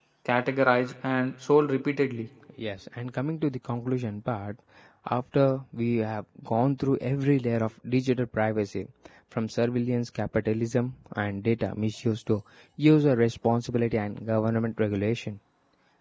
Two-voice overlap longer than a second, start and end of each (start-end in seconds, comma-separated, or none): none